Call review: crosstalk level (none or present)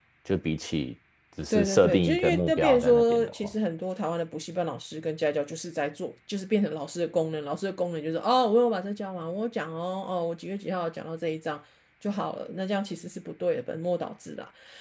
present